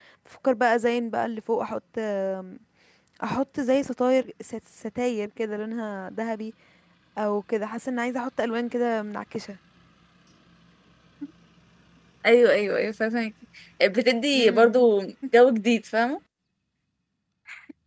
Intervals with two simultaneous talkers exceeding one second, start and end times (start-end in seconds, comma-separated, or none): none